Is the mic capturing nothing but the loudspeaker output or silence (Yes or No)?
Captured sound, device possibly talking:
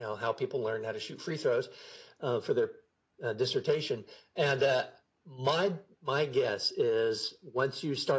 Yes